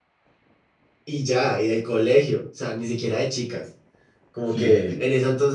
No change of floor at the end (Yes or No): Yes